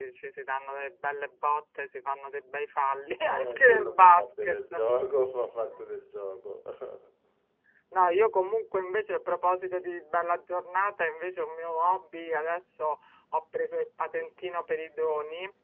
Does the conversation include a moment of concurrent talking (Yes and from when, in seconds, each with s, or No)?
Yes, from 3.2 s